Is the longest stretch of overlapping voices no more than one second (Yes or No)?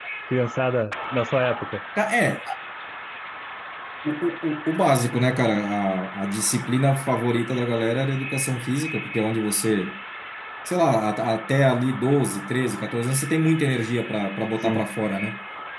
Yes